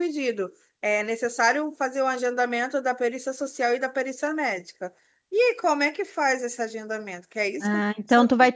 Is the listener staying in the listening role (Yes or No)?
No